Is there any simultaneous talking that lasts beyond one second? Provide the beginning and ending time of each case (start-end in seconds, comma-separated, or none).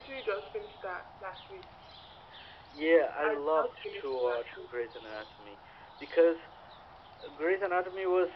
3.2-4.8